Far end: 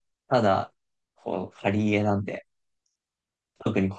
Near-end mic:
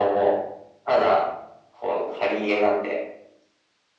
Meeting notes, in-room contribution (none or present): none